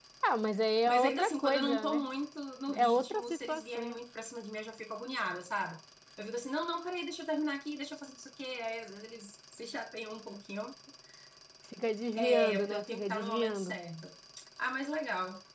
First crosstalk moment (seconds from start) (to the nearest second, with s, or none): 1 s